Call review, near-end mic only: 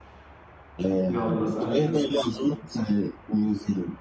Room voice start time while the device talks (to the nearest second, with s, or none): 1 s